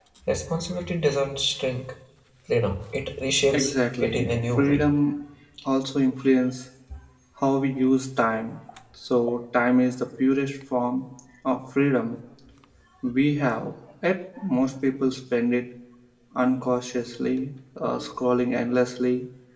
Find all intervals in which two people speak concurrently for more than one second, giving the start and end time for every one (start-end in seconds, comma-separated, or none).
3.5-4.8